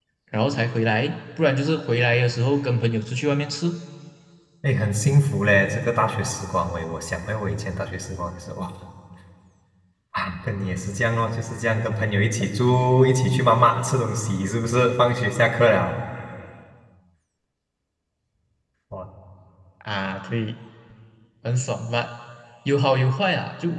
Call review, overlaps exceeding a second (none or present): none